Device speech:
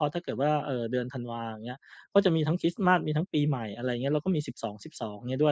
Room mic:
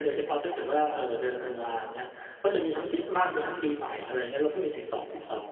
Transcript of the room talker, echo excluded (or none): none